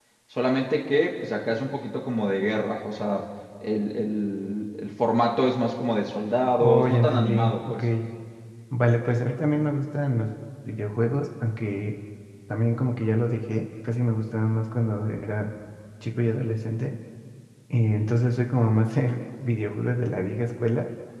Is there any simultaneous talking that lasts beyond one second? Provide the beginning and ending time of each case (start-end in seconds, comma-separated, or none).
6.6-7.8